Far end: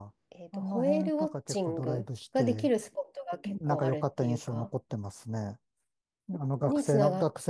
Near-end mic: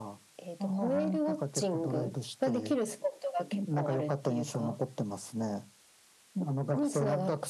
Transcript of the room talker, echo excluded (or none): none